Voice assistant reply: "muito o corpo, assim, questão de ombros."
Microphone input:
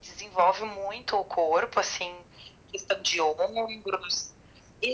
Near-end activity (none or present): none